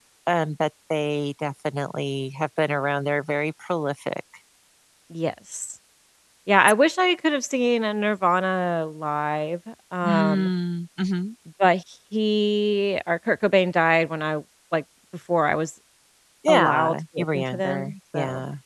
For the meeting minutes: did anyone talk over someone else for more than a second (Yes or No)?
Yes